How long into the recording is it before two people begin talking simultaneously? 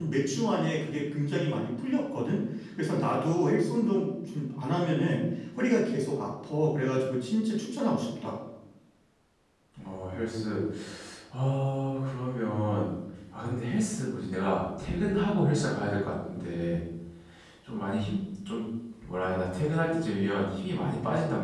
none

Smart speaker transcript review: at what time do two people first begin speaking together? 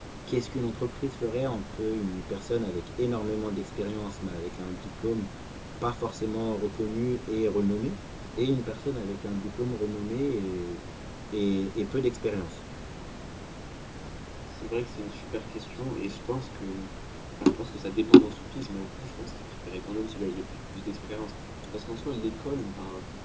none

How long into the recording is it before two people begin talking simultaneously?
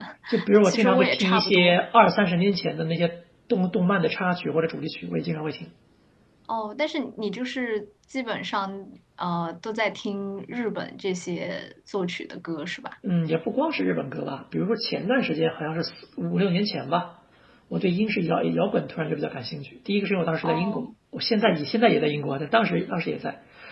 1 s

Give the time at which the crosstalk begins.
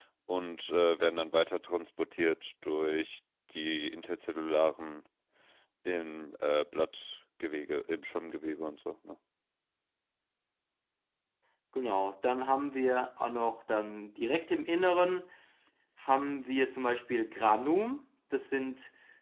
none

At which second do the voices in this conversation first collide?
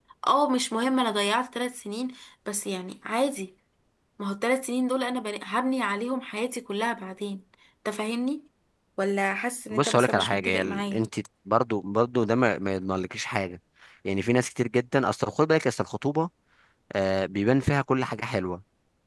10 s

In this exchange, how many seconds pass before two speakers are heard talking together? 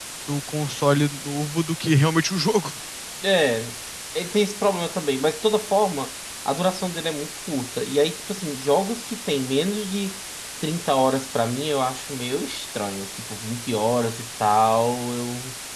none

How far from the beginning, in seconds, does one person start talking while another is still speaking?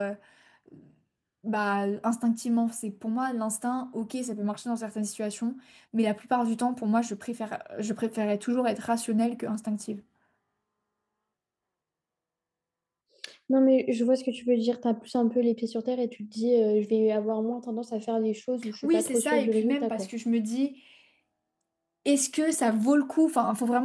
19 s

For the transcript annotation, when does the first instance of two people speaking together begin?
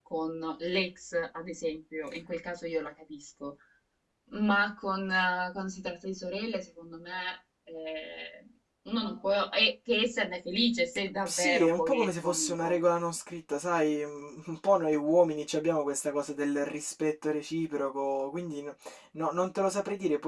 11 s

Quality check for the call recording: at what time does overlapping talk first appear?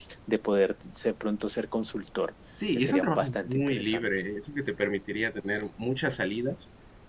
3 s

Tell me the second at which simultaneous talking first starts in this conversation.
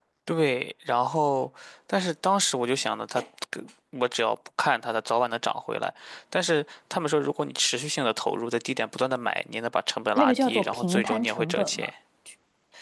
10 s

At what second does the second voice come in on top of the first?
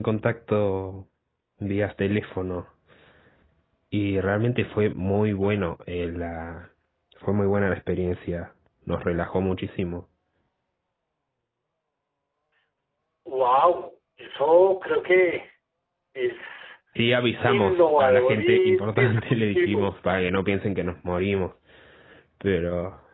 17 s

